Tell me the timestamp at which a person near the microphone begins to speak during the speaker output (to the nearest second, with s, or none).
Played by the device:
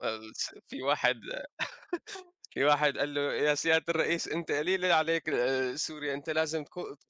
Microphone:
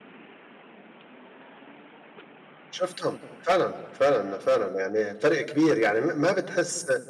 3 s